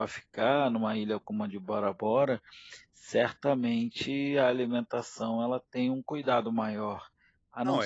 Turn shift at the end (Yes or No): No